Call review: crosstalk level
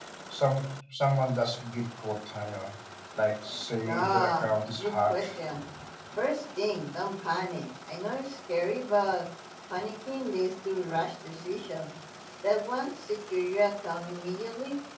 present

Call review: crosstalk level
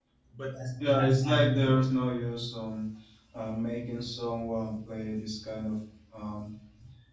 present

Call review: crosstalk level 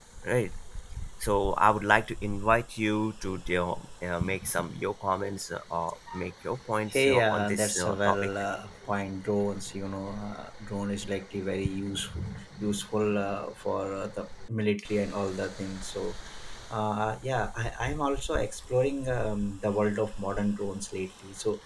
present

